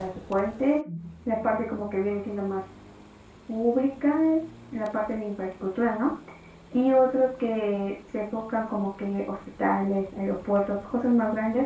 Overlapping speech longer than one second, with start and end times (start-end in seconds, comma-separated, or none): none